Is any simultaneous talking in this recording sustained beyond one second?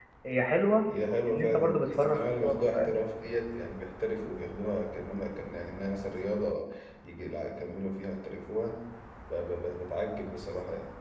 Yes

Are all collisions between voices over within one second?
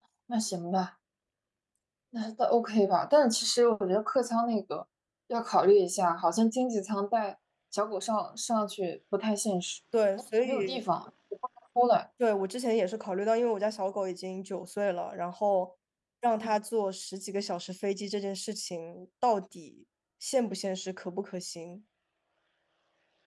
Yes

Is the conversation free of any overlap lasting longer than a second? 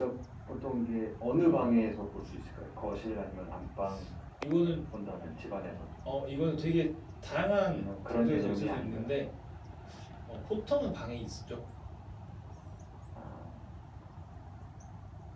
No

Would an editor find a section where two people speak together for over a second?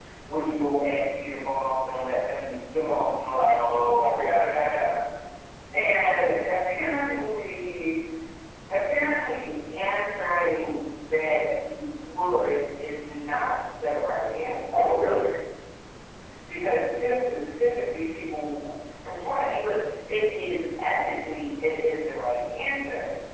Yes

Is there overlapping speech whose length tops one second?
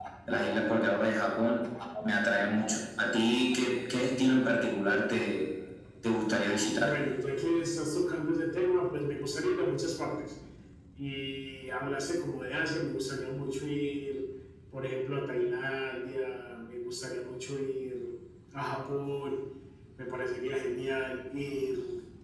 No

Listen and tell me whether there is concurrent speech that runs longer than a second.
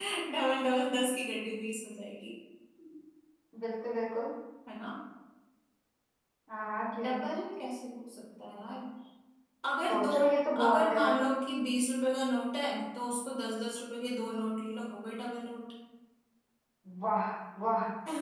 No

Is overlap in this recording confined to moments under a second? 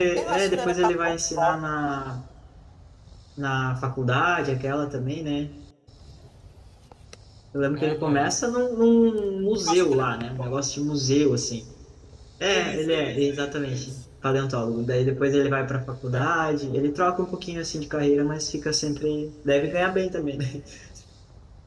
No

